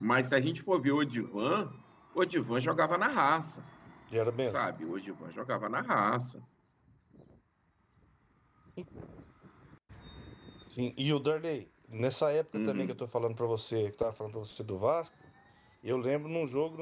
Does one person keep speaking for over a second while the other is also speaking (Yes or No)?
No